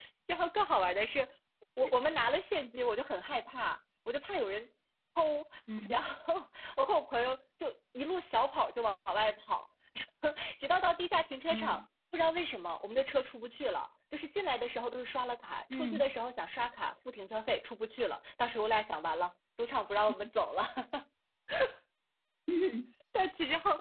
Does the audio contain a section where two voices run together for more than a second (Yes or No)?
No